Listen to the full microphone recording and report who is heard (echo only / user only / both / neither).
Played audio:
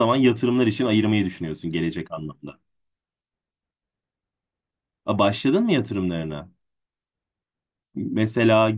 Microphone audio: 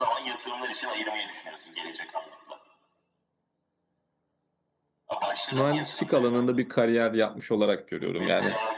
both